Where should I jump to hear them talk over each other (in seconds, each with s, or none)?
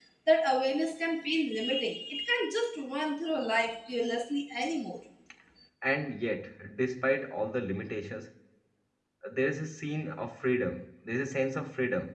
none